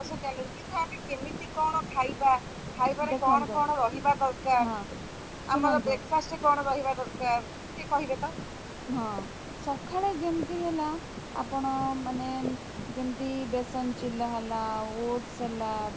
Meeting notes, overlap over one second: none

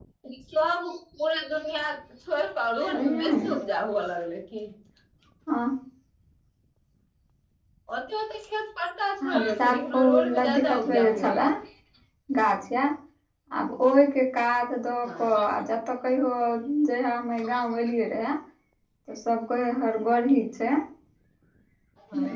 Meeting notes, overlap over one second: present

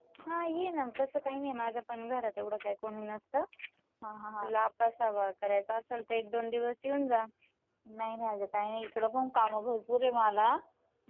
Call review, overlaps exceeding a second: none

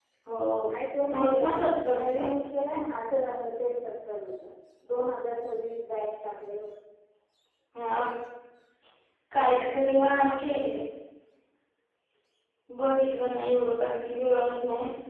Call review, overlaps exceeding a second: none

